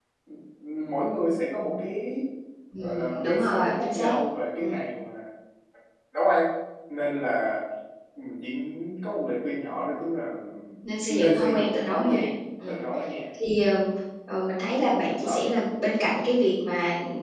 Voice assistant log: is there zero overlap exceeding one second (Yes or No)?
No